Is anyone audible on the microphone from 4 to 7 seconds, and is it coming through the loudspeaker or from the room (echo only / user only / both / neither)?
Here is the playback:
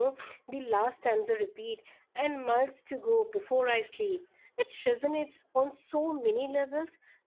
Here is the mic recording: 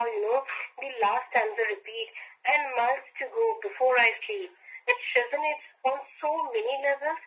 echo only